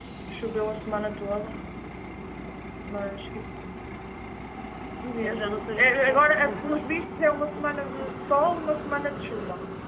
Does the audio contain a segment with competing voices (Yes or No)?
Yes